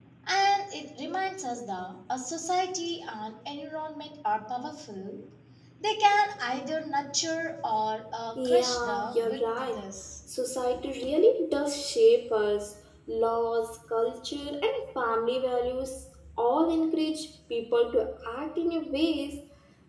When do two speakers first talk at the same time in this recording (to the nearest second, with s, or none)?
8 s